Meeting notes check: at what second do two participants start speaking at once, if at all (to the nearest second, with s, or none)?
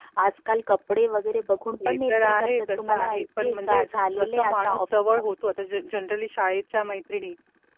2 s